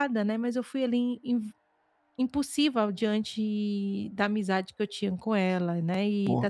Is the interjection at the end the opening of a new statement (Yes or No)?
Yes